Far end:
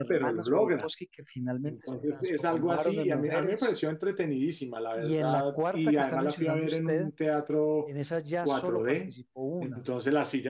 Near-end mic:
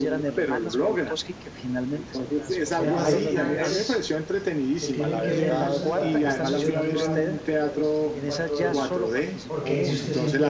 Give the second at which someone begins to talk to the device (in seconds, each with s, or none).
2.7 s